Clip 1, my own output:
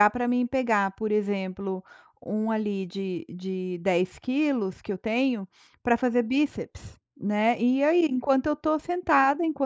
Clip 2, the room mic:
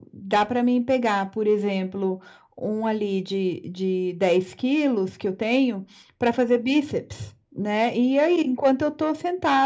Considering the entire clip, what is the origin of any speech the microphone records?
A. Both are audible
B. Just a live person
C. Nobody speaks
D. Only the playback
D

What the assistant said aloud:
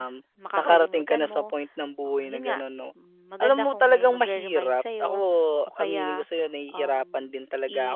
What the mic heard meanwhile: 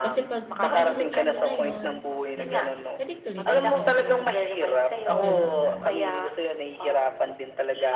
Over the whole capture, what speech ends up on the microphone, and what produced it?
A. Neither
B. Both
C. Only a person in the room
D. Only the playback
B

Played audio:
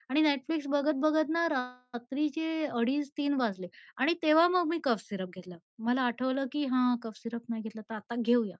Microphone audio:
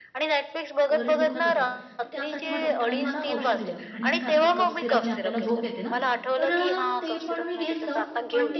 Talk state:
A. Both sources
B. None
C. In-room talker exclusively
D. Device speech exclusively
A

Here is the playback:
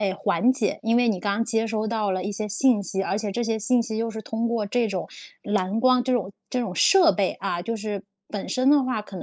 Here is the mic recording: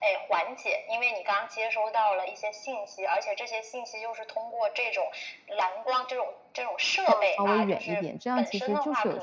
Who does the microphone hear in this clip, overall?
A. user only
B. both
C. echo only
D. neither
B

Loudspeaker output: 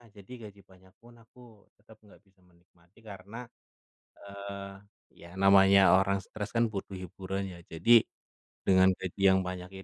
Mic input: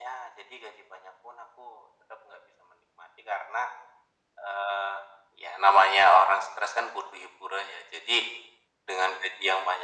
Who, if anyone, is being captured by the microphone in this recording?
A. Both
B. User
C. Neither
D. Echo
D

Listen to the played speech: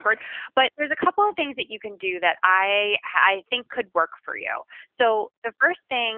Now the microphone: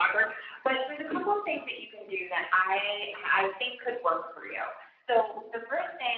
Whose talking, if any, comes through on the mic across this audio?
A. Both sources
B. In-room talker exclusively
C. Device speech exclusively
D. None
C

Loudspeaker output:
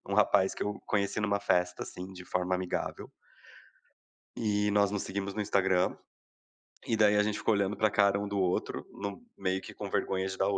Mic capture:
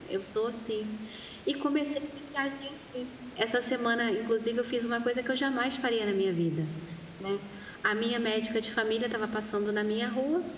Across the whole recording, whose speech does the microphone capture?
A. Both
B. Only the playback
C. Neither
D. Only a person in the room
D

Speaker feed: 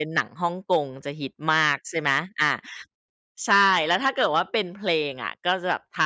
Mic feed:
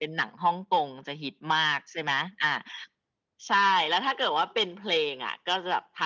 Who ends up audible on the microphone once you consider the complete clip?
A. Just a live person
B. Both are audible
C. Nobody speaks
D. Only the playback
D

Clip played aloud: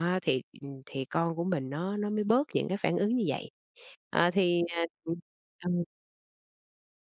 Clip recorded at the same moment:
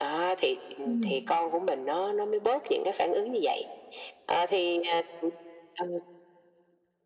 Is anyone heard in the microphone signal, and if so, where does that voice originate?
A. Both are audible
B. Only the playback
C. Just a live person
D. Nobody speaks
A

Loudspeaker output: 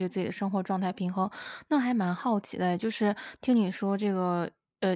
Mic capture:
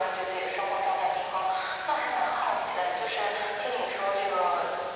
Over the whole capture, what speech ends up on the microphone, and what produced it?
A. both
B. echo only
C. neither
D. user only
B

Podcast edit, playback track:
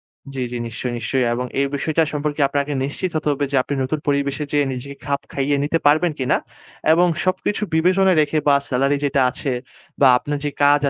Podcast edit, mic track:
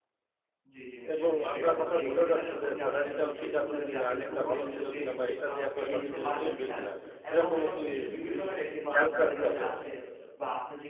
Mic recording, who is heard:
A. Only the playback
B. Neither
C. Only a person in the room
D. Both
D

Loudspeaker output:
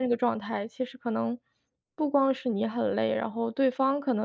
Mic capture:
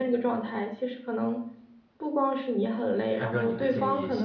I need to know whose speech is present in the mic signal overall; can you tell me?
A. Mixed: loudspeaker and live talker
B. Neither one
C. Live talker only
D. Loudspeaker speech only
A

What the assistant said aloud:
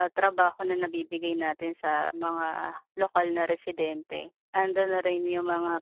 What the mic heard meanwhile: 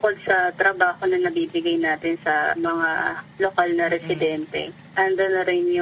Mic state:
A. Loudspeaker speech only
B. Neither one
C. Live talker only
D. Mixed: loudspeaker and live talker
D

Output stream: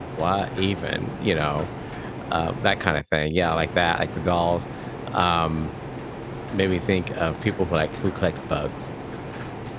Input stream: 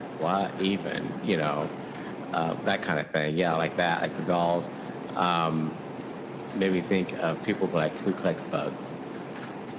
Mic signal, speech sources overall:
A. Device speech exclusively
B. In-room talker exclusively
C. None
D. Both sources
A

